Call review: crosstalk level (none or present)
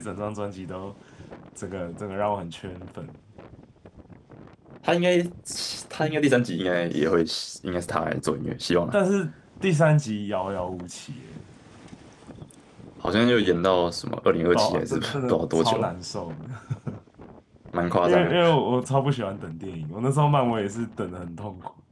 present